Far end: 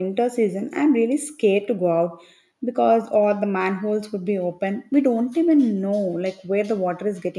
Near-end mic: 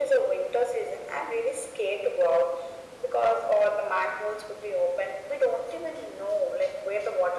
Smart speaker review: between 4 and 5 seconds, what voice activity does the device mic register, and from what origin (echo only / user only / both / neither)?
echo only